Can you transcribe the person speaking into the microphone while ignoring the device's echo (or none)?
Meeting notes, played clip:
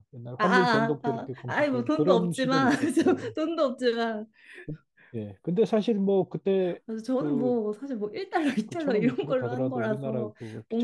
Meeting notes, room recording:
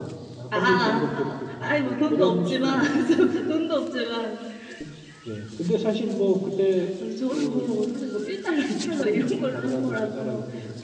근데